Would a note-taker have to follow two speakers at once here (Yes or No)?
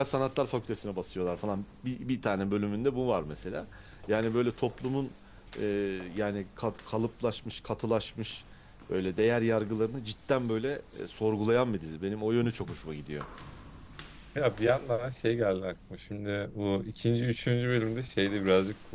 No